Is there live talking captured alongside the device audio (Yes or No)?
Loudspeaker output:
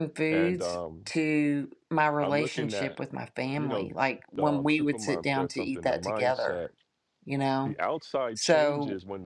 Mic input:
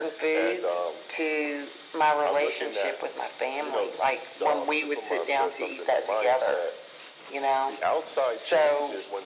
No